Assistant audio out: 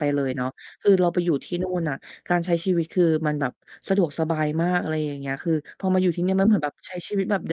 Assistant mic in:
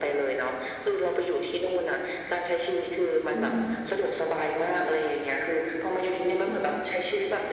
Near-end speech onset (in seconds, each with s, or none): 3.3 s